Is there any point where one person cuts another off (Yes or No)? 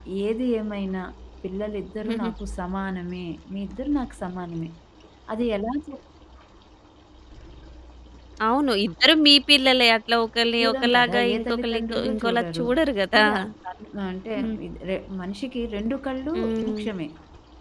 Yes